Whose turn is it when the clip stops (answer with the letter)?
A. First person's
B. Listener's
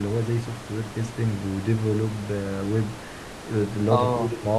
A